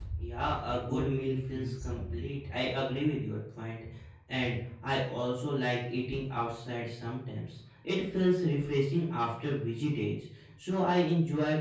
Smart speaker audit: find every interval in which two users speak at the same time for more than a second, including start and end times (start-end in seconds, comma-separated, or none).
0.7-2.3